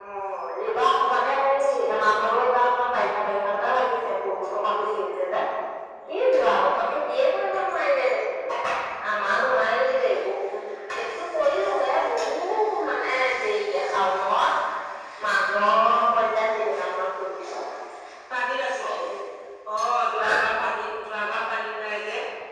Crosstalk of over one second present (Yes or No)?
No